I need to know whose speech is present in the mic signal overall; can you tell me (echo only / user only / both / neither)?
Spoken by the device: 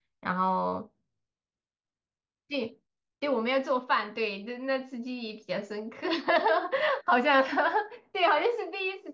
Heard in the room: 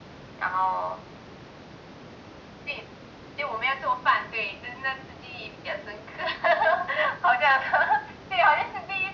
echo only